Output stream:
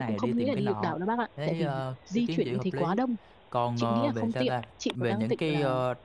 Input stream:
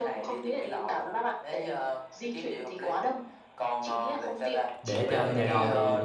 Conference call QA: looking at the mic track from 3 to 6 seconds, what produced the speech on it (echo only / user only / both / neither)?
both